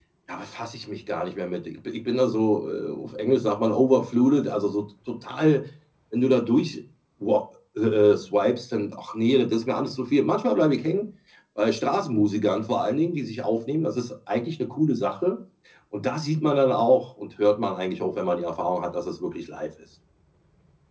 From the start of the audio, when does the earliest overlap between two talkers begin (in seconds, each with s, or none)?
none